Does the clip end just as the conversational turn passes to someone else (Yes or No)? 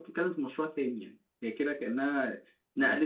No